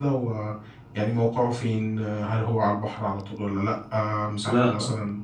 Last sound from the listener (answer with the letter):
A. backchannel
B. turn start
A